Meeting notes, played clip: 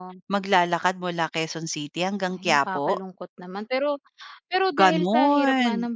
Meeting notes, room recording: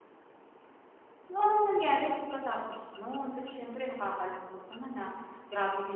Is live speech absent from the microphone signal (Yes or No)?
No